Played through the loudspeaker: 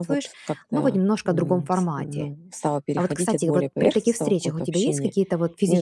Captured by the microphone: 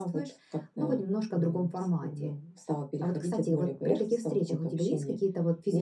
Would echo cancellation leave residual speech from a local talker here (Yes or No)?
No